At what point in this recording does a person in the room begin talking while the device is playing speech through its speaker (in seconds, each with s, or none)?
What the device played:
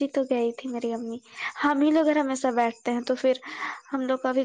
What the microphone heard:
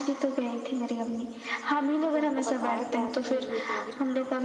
2.0 s